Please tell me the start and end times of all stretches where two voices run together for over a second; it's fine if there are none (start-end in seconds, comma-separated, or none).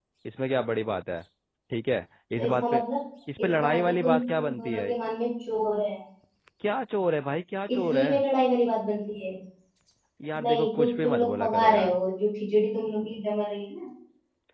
3.4-4.9, 10.4-12.0